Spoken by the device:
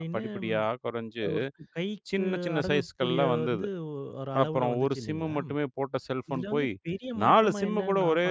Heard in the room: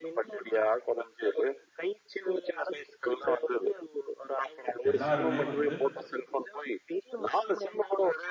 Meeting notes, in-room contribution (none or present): present